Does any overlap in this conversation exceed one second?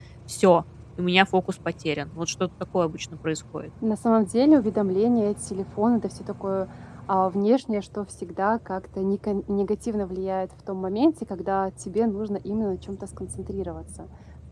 No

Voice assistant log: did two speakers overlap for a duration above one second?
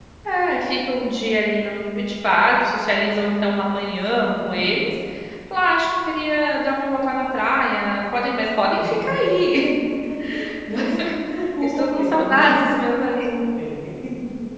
Yes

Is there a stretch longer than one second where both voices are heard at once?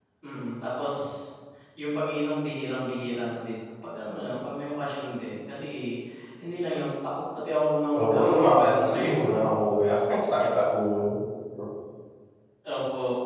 Yes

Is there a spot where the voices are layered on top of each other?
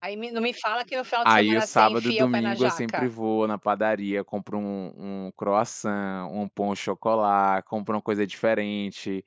Yes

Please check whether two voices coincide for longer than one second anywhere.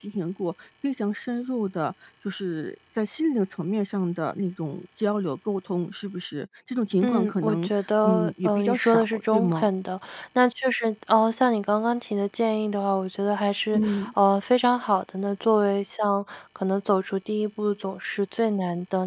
Yes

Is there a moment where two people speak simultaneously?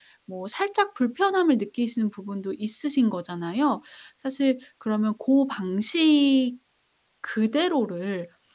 No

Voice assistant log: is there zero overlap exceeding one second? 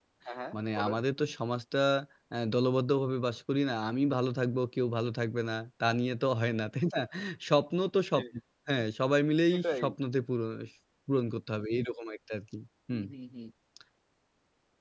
Yes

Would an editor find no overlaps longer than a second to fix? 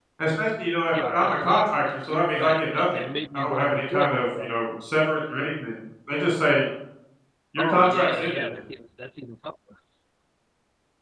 No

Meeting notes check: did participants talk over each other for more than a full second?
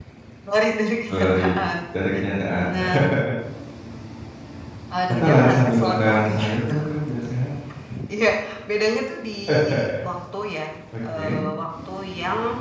Yes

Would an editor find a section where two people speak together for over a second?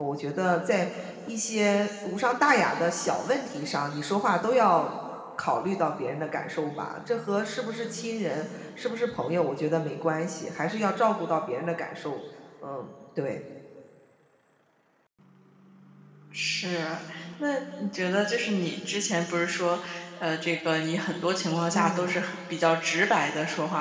No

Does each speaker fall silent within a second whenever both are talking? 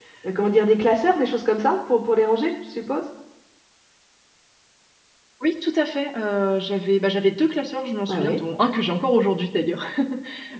Yes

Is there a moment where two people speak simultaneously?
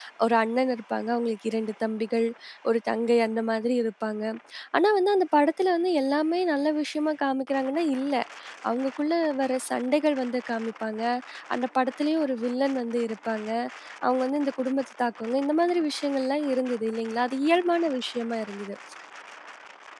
No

